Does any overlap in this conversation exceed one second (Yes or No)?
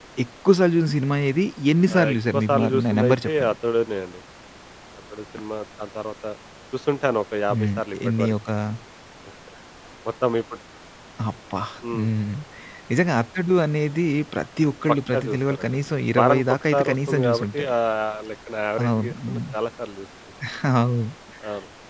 Yes